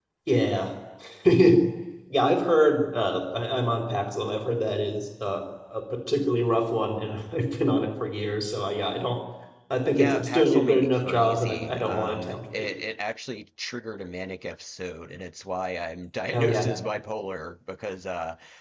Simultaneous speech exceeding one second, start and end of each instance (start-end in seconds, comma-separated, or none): 9.9-12.7